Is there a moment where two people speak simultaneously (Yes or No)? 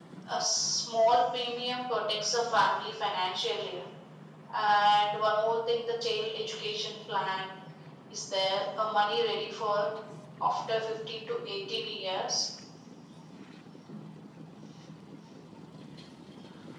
No